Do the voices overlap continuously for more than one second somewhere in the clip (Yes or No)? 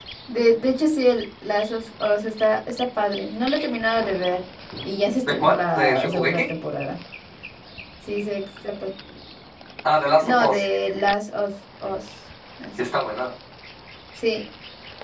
Yes